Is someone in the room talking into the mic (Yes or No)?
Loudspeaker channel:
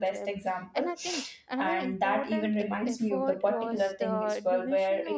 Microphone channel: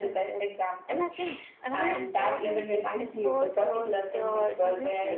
No